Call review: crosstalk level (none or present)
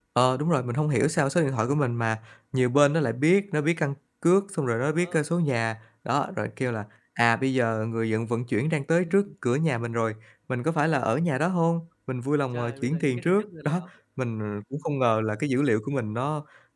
present